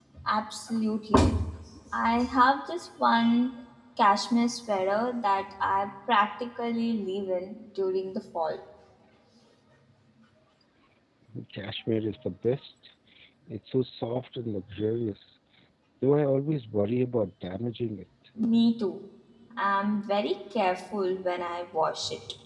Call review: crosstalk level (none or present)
none